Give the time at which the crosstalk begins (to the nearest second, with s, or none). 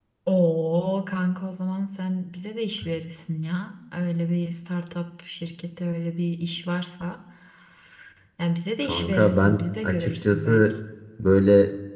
9 s